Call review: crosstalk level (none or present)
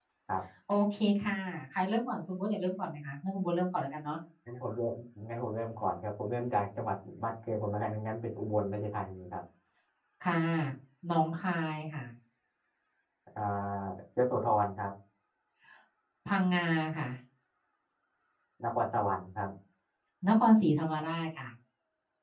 none